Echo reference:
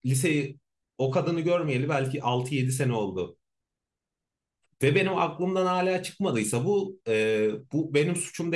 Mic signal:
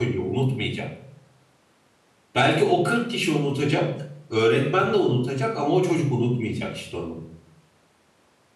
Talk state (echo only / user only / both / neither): user only